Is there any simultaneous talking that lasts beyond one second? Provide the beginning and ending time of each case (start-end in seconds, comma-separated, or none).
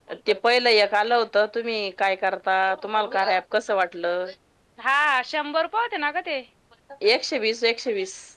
none